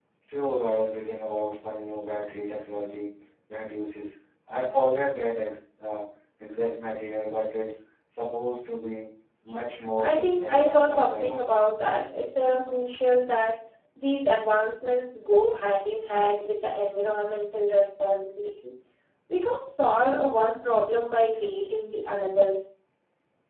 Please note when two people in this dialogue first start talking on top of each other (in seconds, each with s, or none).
10.0 s